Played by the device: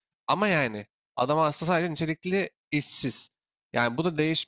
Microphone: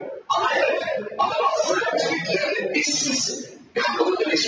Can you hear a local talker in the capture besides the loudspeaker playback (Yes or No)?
No